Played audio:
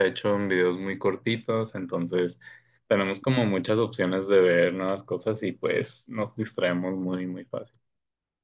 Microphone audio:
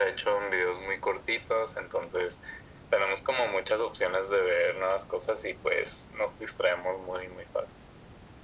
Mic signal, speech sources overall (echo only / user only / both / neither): echo only